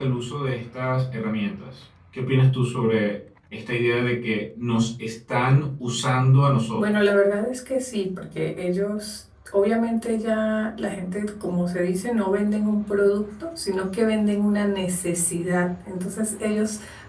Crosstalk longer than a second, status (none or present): none